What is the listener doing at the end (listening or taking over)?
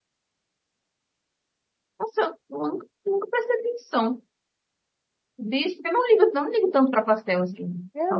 taking over